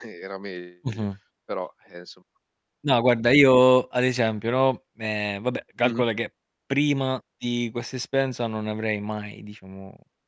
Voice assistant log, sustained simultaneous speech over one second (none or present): none